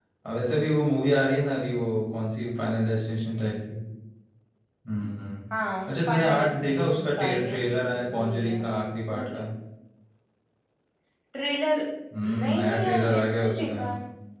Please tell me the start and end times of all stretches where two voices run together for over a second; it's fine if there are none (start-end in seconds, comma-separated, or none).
5.9-8.6, 12.2-13.7